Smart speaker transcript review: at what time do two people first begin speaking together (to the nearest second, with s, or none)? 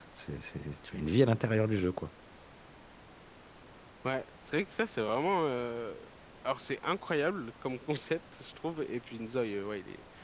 none